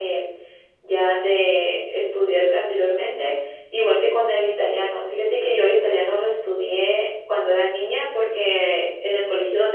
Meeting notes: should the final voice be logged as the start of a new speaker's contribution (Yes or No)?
No